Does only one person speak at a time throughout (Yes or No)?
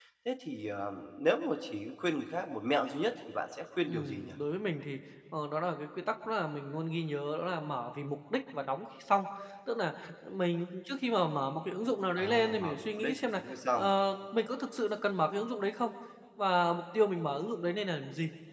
No